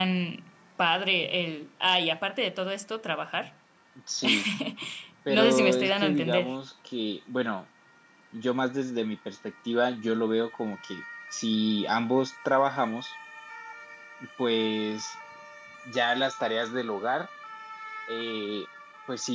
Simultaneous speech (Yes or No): Yes